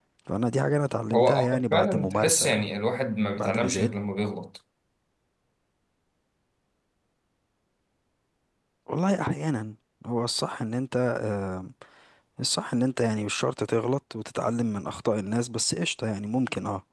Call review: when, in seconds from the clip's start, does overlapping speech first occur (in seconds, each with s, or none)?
1.1 s